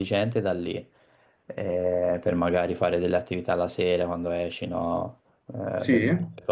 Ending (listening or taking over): listening